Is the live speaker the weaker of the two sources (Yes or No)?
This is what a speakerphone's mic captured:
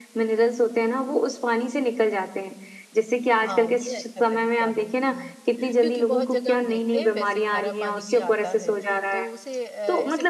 Yes